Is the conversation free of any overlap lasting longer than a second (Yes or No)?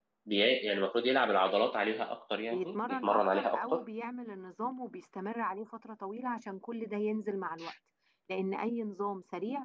No